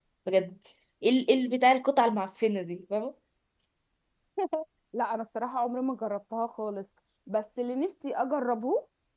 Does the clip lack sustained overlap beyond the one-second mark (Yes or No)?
Yes